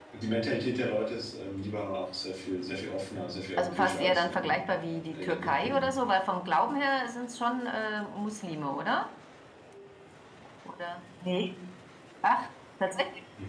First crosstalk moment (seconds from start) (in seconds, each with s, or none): 3.6 s